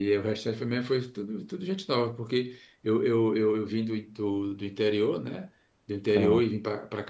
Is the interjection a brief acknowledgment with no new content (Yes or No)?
Yes